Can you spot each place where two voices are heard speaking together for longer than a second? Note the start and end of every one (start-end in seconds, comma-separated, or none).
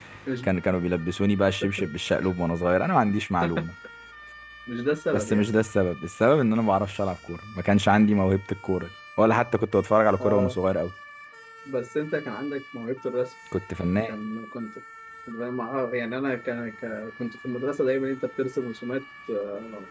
none